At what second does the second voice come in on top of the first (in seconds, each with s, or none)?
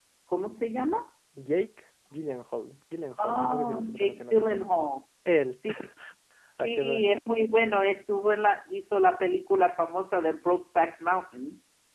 3.2 s